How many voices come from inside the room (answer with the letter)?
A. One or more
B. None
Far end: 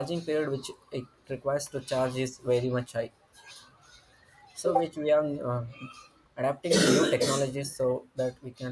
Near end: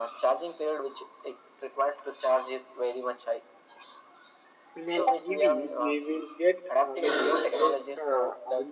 A